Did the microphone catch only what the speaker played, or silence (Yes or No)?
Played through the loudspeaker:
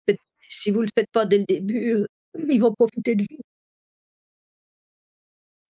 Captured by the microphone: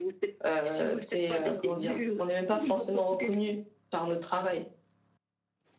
No